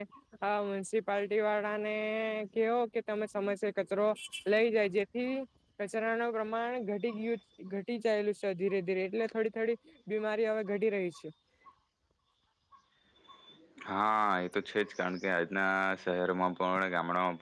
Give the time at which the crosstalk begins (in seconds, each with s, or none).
none